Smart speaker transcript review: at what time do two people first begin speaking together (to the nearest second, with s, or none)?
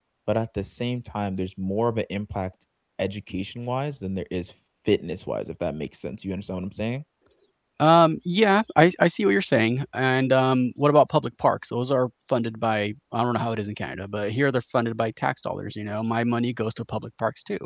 none